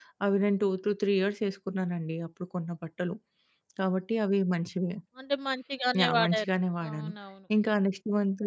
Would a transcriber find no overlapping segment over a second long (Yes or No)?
Yes